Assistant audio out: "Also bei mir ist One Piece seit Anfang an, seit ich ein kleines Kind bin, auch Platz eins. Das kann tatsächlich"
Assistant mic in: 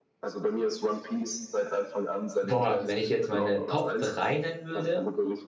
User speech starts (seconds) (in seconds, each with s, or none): 2.4 s